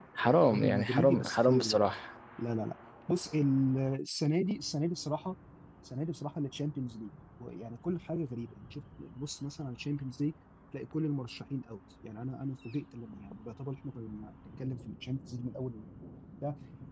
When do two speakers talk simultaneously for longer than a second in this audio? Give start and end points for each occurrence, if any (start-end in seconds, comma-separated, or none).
0.5-1.9